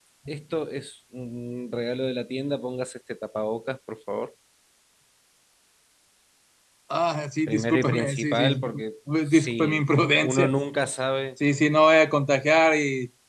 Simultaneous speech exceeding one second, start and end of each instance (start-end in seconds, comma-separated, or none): 7.5-8.7, 9.3-10.5